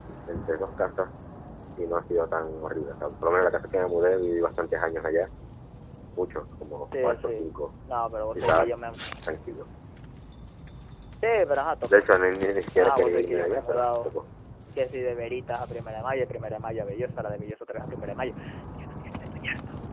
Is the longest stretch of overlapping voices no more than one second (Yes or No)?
No